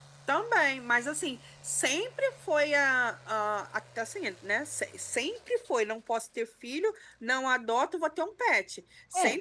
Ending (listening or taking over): listening